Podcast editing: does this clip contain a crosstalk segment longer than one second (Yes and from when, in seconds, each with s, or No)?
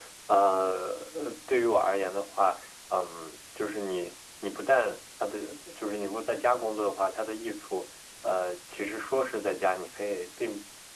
No